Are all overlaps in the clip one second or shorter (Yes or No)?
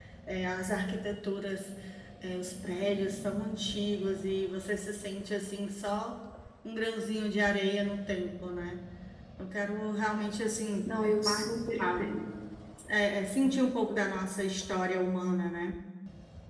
Yes